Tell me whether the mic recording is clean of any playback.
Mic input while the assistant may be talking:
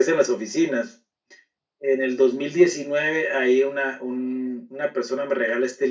No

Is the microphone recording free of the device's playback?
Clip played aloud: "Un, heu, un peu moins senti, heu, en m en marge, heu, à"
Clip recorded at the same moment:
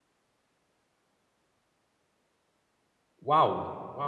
Yes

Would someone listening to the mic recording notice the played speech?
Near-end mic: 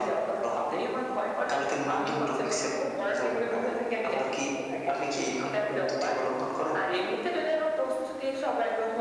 Yes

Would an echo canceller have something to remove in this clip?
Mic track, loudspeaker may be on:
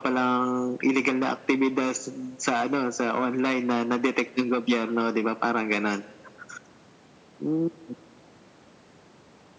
Yes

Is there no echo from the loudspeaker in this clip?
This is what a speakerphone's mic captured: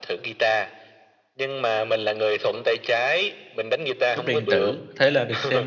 No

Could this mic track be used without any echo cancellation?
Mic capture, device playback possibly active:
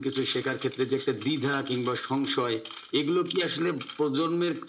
No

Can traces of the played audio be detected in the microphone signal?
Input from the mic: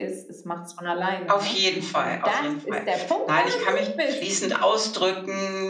Yes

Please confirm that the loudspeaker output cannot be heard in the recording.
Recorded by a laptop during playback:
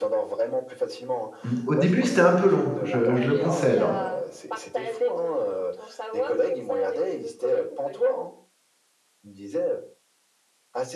No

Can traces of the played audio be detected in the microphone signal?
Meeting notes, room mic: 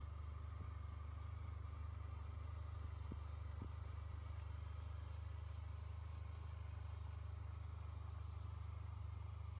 No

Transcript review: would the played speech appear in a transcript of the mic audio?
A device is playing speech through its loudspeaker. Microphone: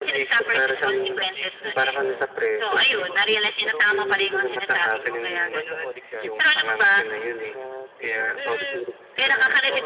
Yes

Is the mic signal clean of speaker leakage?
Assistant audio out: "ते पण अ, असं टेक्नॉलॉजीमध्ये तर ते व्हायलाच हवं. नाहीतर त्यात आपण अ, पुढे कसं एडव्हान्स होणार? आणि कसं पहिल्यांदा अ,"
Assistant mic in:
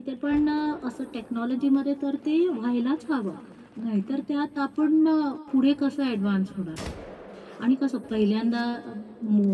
No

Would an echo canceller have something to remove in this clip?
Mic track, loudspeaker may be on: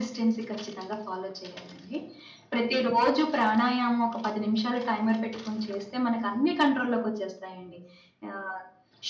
Yes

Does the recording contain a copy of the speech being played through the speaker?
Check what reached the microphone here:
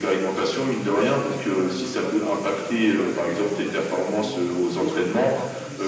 Yes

